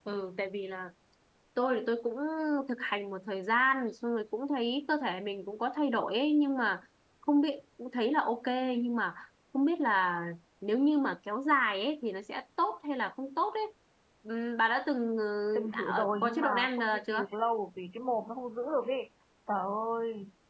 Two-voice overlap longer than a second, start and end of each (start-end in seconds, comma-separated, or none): 15.7-17.2